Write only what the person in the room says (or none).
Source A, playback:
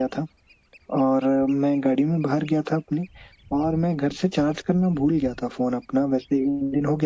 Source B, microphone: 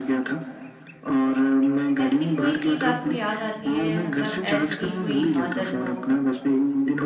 ऐसी कोई चीज़ आपको याद आती है, मतलब ऐसी कोई आदत हो